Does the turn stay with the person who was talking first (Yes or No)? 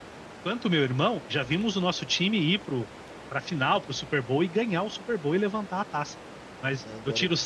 Yes